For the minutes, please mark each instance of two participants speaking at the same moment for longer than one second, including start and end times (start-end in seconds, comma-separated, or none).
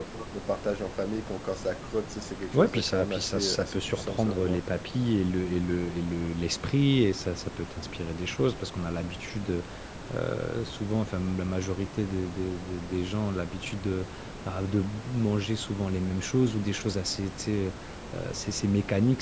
2.5-4.6